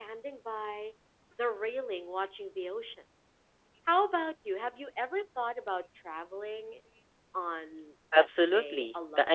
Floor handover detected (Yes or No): Yes